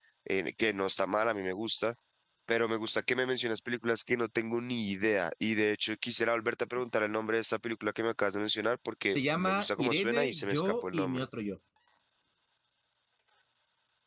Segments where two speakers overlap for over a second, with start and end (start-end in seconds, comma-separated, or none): 9.1-11.2